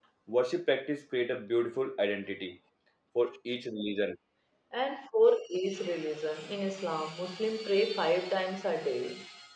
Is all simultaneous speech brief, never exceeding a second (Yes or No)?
Yes